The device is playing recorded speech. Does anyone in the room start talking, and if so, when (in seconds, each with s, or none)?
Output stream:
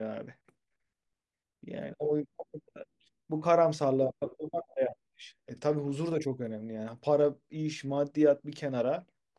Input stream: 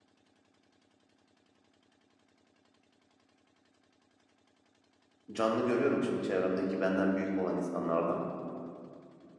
5.3 s